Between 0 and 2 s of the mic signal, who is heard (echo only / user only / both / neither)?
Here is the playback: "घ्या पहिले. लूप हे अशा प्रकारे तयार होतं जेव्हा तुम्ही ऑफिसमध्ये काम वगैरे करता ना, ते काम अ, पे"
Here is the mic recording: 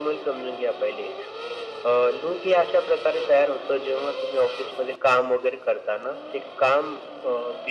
echo only